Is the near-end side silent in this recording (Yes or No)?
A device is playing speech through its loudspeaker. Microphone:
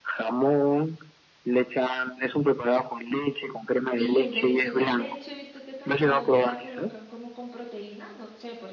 No